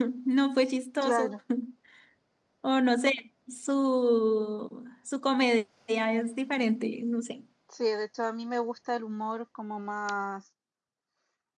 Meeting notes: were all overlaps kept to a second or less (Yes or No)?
Yes